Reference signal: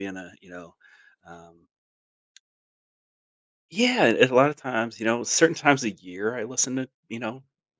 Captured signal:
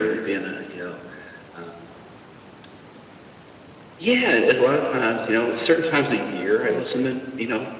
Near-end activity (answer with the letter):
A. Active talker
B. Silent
A